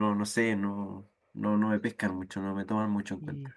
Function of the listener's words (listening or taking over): taking over